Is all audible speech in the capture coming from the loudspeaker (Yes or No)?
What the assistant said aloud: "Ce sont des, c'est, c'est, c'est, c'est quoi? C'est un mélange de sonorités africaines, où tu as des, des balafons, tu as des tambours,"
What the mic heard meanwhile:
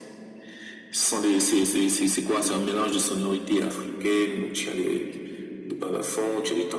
Yes